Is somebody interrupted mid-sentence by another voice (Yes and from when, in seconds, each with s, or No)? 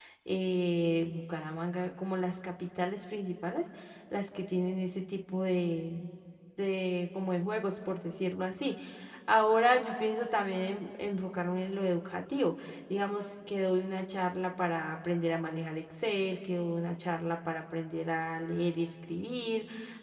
No